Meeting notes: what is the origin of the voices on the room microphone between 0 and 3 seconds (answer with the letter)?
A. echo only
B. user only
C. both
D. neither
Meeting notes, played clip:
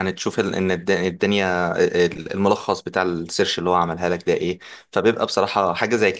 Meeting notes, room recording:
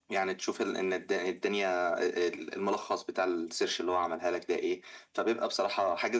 A